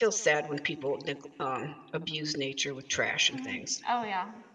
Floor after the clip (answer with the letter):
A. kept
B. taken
B